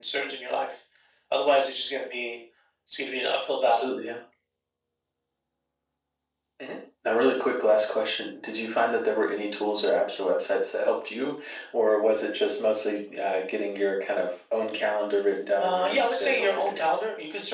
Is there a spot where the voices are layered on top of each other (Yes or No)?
Yes